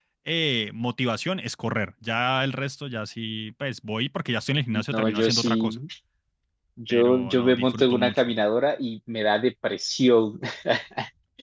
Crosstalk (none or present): present